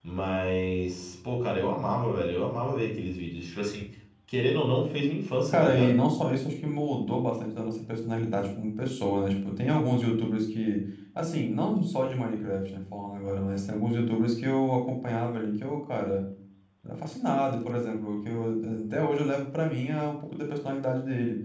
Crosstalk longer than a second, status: none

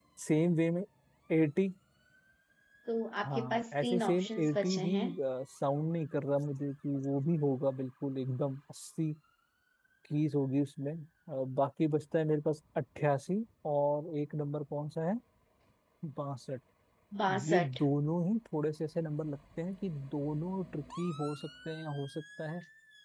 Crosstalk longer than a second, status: present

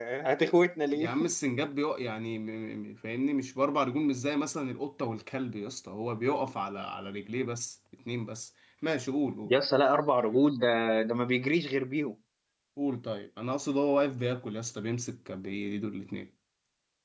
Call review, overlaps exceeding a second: none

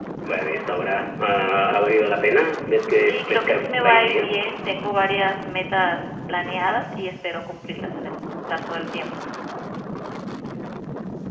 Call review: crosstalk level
present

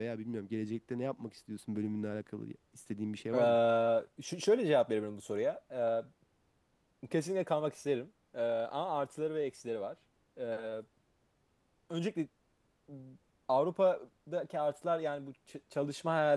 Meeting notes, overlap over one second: none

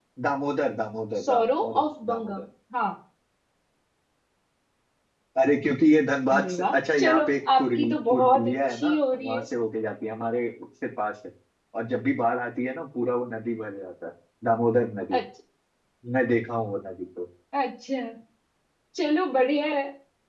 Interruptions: present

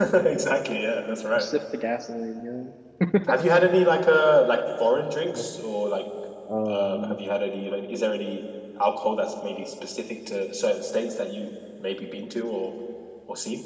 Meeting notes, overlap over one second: none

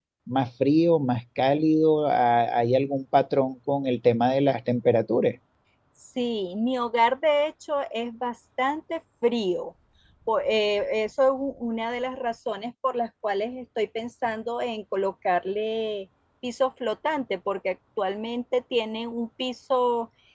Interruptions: none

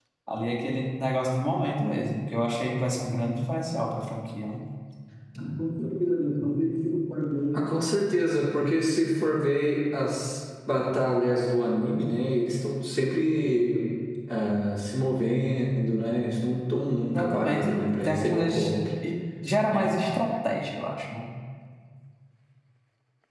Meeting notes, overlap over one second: present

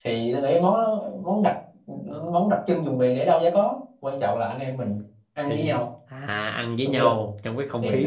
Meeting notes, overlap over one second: none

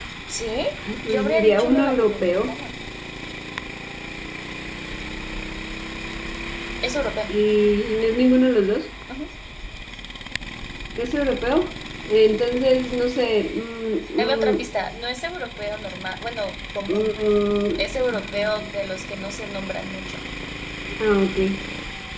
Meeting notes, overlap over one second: present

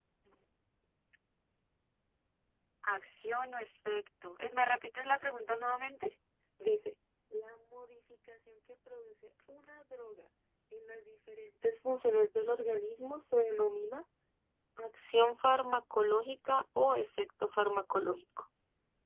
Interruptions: none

